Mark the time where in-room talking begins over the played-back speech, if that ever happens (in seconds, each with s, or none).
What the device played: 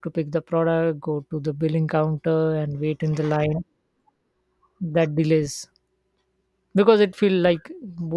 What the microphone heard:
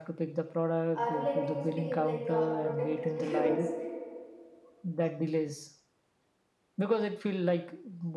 0.9 s